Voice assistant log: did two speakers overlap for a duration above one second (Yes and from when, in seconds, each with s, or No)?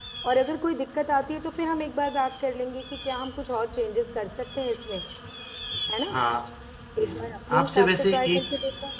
Yes, from 7.0 s